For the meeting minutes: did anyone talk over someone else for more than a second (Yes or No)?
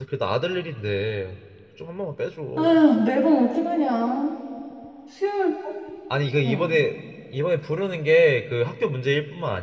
No